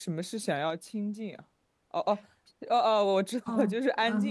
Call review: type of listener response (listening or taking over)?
taking over